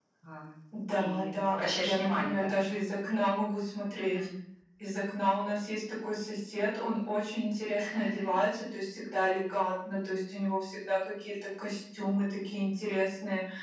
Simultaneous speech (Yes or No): Yes